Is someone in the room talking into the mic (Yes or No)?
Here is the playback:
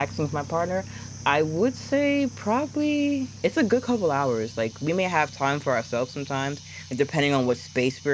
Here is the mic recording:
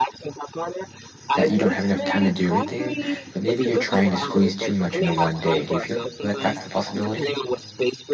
Yes